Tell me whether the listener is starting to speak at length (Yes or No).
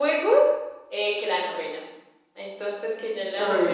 No